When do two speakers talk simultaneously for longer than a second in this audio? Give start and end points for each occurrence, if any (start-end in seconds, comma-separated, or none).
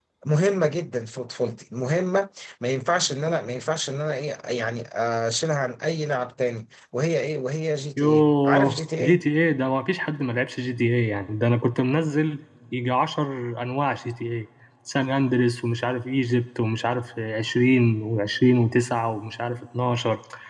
8.0-9.2